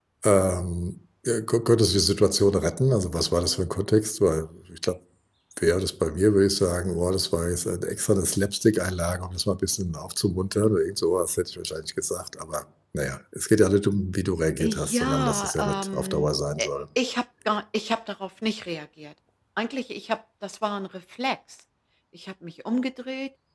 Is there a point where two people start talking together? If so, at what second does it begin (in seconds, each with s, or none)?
14.6 s